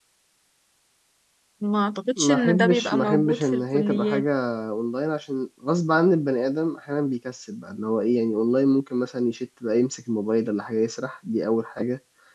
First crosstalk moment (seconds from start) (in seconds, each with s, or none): 2.2 s